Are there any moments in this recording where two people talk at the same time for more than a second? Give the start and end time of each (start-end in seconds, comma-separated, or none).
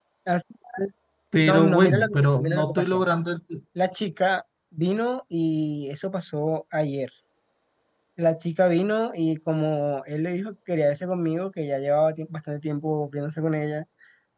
1.4-3.0